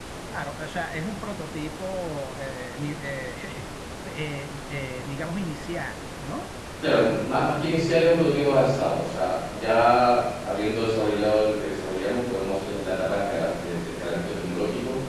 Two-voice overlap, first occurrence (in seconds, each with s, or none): none